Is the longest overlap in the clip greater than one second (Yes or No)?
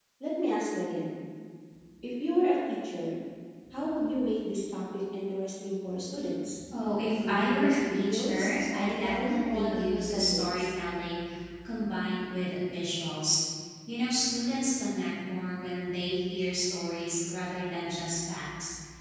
Yes